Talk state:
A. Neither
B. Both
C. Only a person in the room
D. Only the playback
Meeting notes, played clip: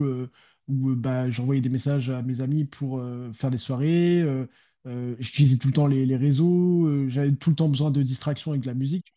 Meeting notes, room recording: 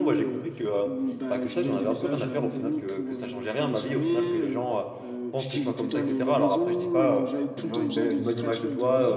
B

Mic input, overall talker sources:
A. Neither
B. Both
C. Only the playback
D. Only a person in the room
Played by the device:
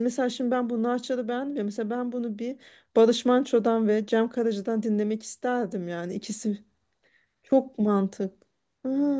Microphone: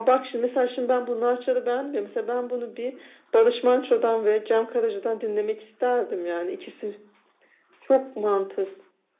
C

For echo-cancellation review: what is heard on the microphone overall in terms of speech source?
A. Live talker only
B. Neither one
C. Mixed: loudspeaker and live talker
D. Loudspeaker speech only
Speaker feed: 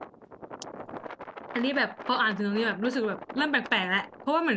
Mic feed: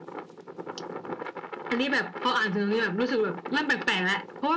D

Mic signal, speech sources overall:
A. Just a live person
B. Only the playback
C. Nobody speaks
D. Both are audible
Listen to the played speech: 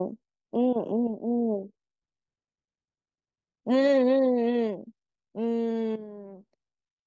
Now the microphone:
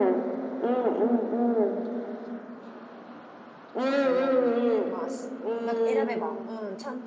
D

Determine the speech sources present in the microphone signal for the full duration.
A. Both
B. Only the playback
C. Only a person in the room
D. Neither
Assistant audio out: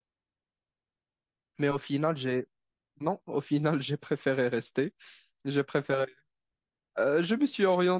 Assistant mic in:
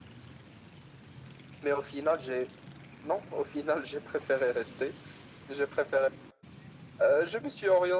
B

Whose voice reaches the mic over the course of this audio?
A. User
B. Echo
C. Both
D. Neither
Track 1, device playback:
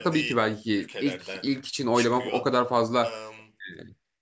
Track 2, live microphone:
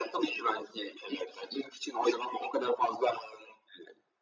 B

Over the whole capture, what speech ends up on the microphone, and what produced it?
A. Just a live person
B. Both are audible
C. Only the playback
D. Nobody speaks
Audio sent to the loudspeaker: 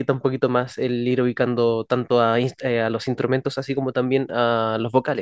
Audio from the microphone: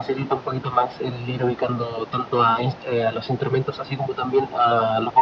C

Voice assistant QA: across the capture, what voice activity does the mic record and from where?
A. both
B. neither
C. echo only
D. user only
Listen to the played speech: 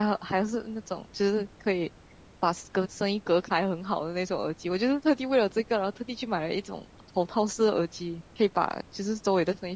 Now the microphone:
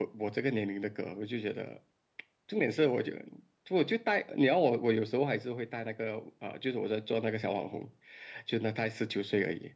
D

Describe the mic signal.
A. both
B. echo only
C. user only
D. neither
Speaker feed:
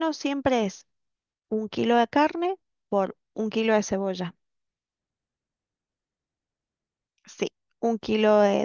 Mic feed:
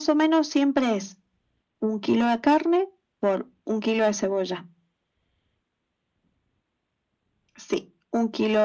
B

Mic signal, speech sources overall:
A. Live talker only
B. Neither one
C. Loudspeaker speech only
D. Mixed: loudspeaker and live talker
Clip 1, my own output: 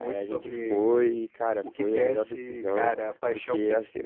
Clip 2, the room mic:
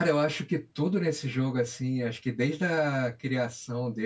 A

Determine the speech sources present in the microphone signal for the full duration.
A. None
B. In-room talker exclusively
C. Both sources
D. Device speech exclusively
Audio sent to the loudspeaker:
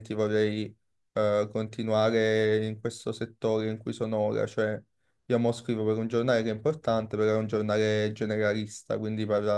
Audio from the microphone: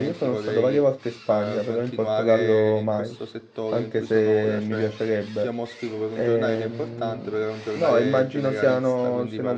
C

